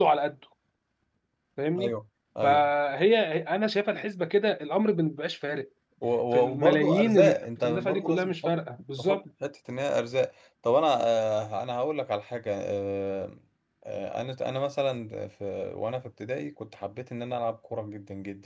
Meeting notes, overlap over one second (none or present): present